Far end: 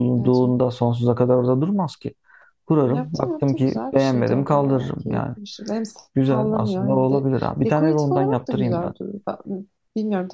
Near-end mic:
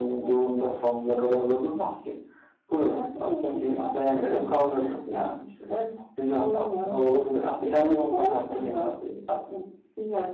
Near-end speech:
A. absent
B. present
A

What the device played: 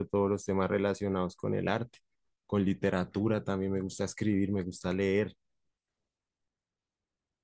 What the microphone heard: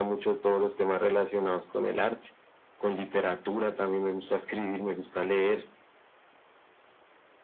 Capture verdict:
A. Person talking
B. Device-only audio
B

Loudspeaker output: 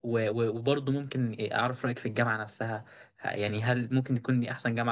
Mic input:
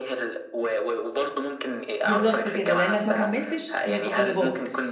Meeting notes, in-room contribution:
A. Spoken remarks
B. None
A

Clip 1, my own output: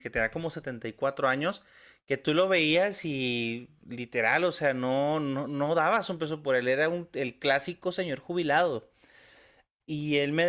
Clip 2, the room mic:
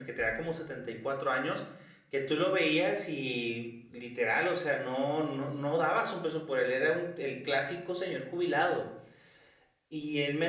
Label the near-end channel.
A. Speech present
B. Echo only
B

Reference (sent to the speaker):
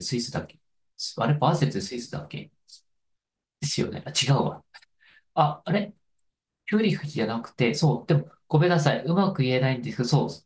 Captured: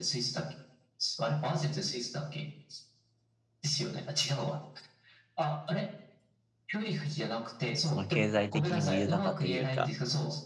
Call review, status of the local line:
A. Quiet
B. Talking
B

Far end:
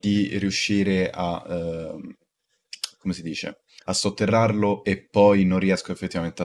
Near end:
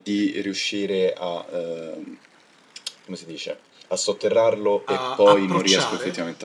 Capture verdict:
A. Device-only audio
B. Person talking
B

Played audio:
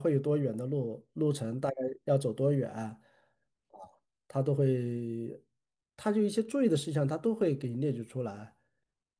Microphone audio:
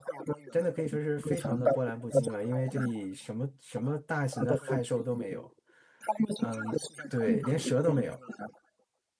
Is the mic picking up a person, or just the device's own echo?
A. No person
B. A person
B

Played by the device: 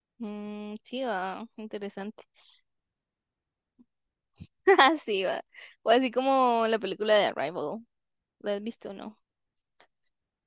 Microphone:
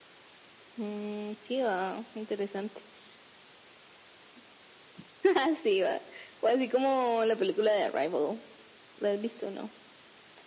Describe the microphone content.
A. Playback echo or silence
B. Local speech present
A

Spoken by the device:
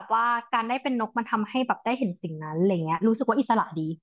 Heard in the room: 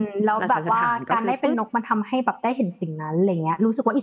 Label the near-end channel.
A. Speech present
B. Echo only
A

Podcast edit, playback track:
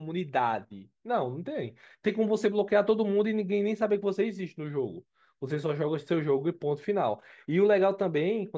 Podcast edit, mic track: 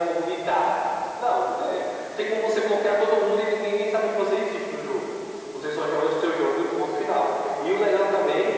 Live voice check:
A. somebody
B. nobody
B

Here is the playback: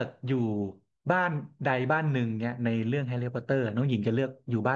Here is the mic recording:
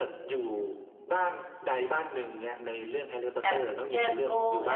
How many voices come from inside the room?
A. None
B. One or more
B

